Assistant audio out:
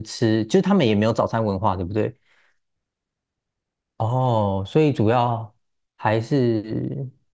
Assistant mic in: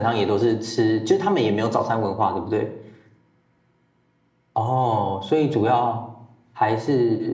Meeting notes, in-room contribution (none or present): none